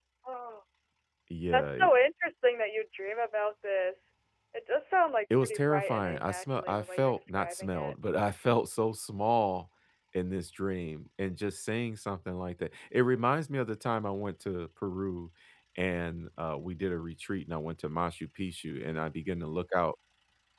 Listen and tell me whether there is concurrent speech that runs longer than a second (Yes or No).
Yes